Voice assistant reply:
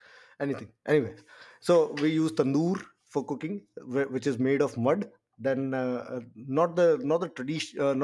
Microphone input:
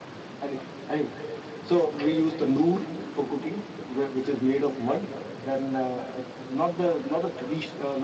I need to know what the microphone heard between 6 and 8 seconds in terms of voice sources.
echo only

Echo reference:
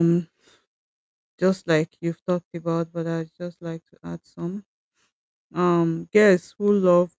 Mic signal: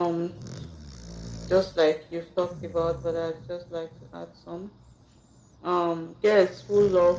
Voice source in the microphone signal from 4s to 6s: echo only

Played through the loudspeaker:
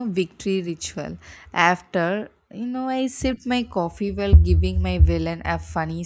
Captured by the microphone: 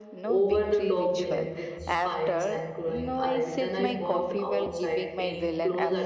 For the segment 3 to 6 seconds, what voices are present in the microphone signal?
both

